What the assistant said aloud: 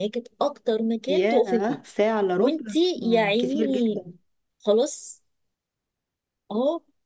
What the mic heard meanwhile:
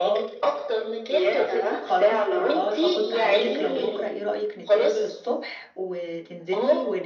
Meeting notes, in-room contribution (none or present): present